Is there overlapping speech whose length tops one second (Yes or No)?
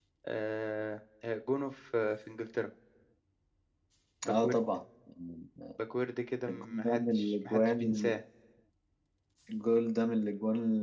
Yes